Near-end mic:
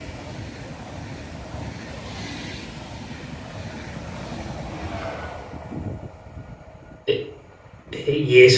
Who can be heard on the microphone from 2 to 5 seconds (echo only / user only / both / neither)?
neither